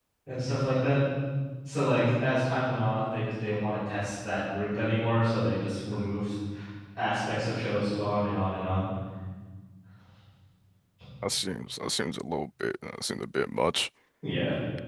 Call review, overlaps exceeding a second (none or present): none